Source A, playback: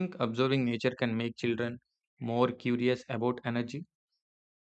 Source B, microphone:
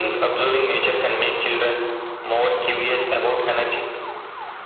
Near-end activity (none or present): none